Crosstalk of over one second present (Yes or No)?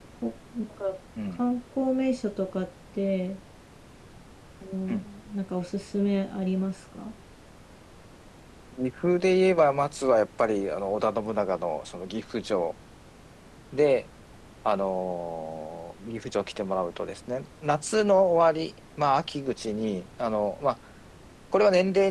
No